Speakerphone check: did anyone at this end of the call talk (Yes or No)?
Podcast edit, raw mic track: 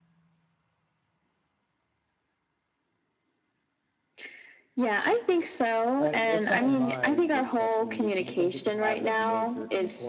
Yes